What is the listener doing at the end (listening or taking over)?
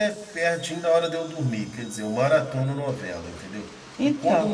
listening